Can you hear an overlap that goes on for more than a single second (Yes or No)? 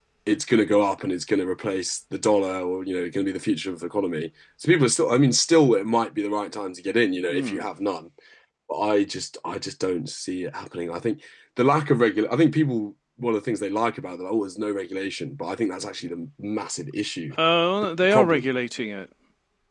No